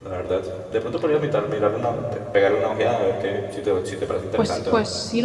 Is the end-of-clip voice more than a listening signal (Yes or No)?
Yes